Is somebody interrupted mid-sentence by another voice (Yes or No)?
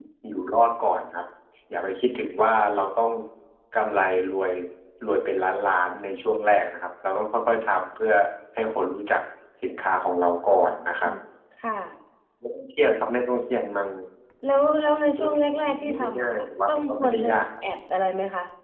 Yes